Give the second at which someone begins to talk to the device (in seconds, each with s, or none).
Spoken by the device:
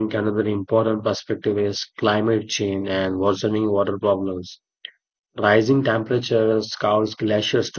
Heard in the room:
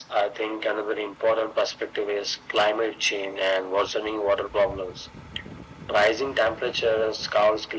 none